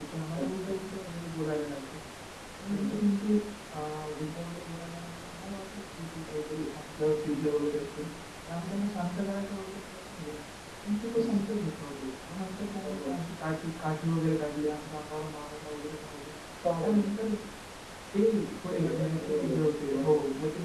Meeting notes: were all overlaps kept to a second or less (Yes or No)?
No